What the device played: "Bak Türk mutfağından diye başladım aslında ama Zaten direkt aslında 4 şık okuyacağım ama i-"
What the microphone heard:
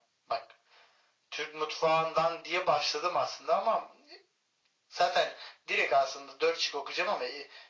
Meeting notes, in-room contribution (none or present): none